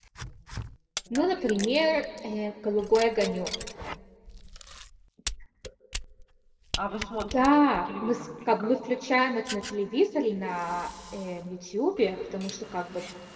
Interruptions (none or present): present